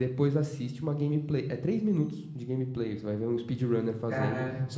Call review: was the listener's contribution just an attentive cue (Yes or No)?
Yes